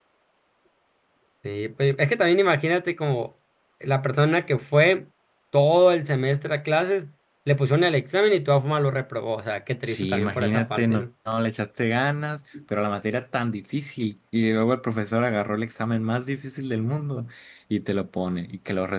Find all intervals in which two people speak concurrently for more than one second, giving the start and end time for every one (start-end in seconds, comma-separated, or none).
9.8-11.0